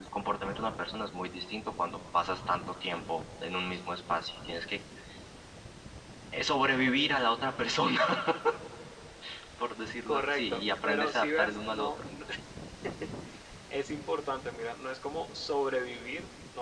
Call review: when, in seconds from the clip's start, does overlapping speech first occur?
10.1 s

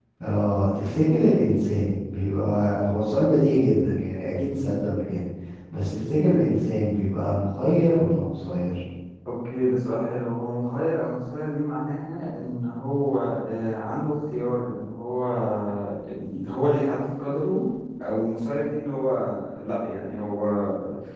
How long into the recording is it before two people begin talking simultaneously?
none

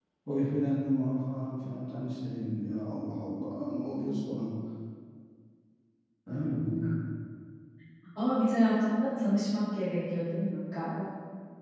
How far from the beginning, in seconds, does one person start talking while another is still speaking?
none

